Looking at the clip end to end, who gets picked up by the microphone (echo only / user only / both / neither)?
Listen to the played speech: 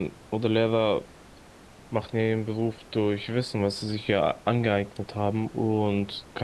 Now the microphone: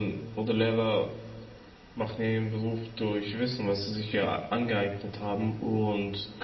echo only